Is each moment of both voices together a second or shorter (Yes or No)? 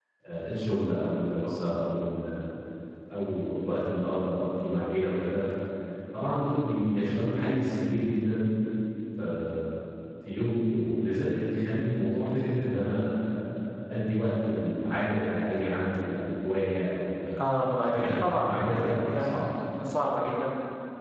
No